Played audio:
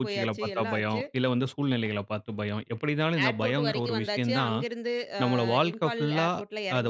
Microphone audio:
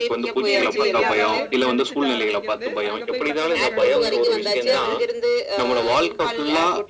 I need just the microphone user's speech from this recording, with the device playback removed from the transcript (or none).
இது எனக்கு தெரியாதா? அப்டின்னு நெனச்சுட்டு ஆரம்பிக்கிறது. அங்க போய் பார்த்தா நமக்கு அங்க ஒண்ணுமே தெரிஞ்சிருக்காது.